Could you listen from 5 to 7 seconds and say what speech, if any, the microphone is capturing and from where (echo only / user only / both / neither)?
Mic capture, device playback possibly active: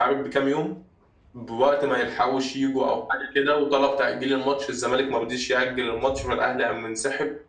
echo only